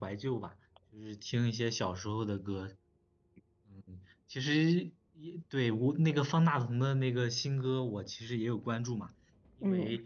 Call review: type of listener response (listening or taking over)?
listening